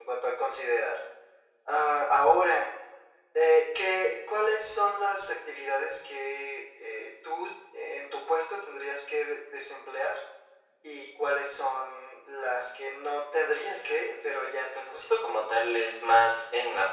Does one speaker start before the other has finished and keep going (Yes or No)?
Yes